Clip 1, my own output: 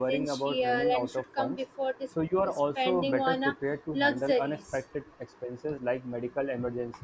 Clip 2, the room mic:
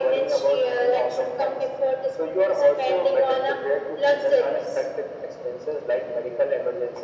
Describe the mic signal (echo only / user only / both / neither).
echo only